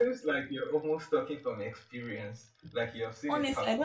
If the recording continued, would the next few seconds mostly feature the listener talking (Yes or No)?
Yes